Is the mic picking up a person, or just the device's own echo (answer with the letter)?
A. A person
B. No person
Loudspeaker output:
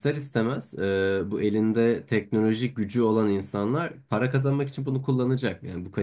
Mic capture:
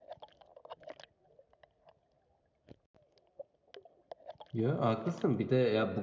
A